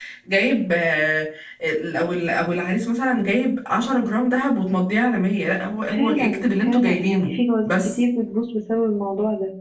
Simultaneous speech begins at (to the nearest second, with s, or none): 6 s